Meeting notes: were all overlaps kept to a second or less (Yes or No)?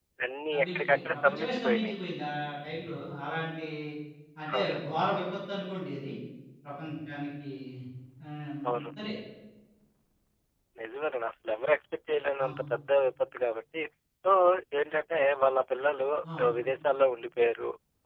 No